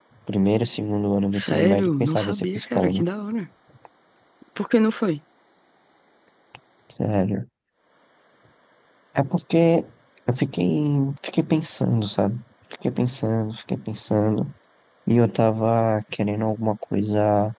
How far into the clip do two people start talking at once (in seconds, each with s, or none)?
1.3 s